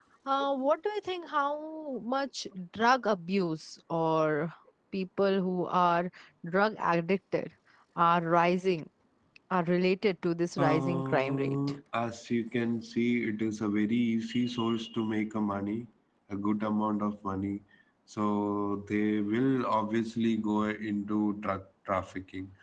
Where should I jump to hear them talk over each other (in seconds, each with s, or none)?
10.6 s